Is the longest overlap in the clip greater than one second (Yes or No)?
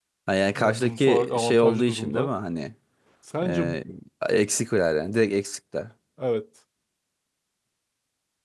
Yes